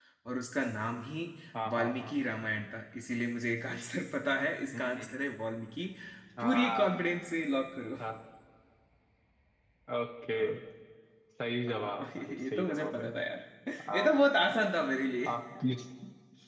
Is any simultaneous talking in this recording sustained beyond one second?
Yes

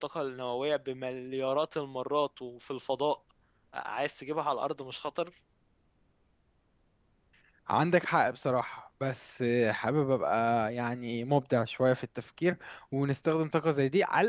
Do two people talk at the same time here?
No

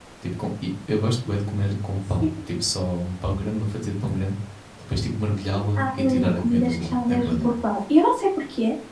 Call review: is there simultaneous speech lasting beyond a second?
Yes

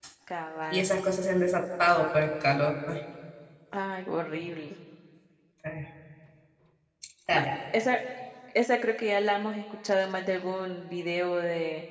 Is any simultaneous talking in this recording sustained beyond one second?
No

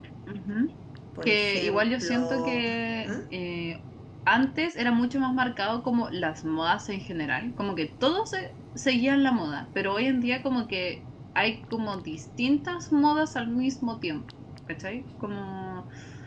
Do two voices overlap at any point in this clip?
Yes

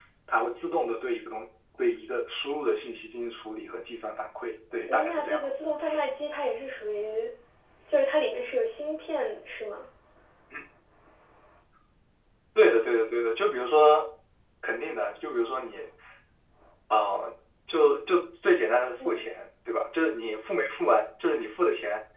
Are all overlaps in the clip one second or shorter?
Yes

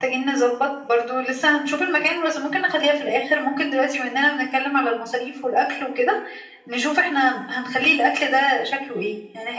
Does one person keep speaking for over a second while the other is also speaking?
No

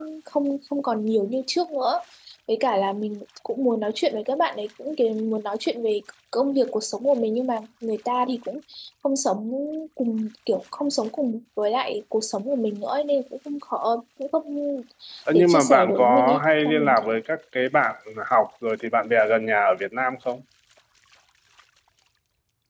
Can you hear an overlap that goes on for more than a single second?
Yes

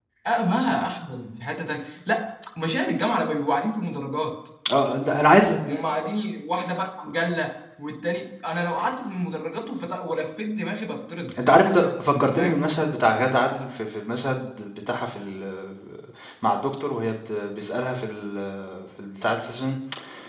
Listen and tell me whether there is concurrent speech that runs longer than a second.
No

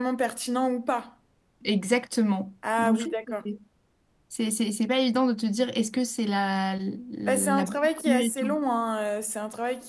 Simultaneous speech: Yes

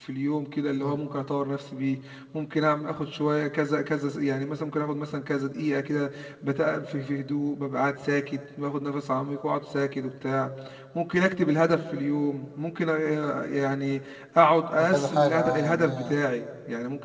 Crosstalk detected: Yes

